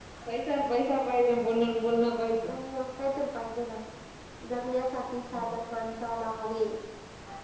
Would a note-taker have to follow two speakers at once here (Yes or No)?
No